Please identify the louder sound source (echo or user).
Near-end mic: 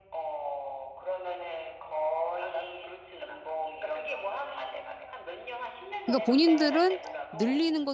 user